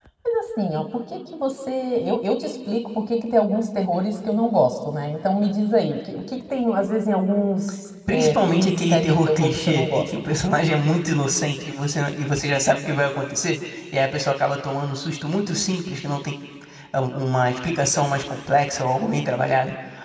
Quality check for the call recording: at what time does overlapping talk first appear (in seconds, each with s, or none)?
8.1 s